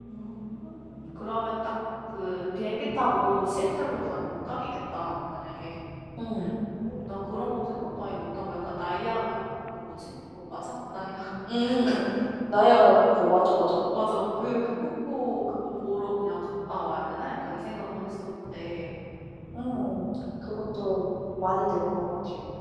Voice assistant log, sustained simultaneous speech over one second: none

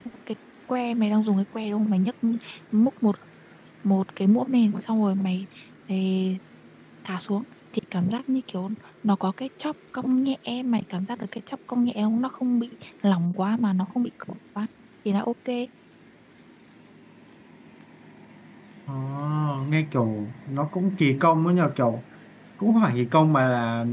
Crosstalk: none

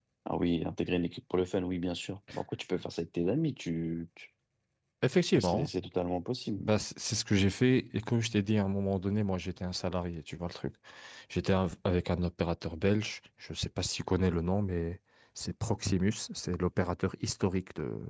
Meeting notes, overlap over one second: none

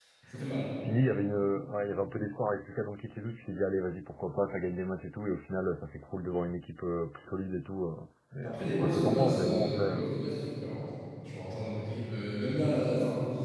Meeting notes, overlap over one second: present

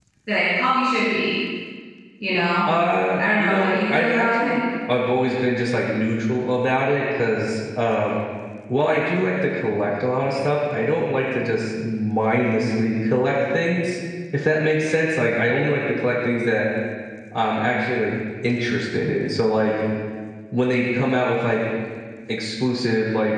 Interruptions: present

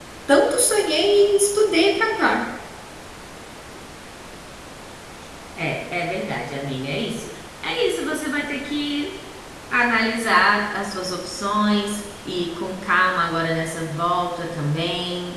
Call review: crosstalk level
none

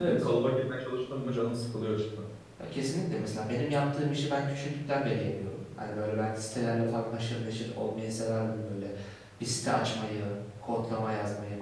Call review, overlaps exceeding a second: none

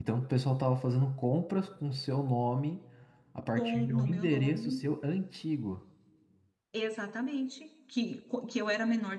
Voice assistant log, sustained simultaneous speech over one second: present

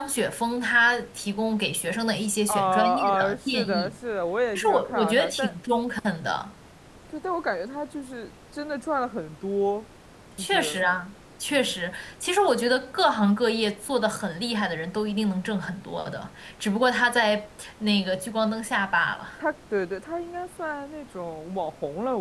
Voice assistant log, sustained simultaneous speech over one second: present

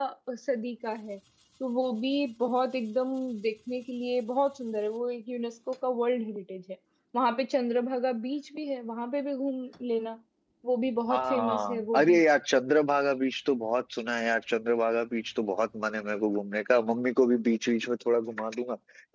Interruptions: present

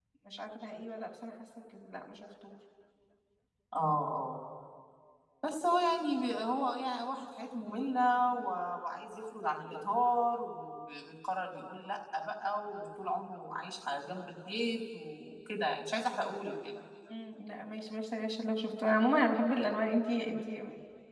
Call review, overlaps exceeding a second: none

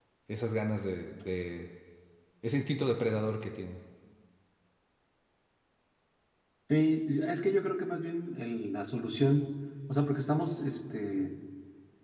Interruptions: none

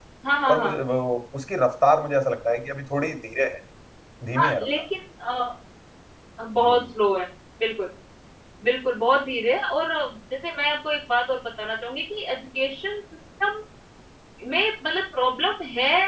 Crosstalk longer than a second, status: none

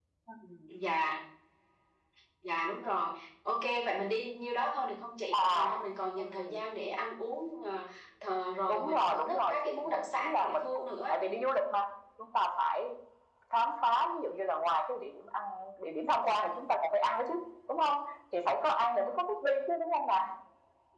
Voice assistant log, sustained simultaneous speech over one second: present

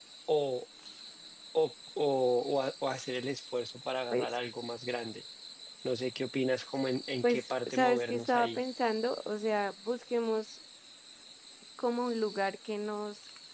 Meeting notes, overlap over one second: present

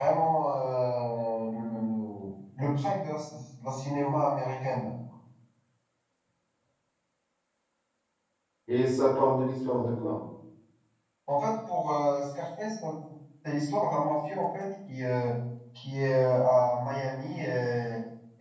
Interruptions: none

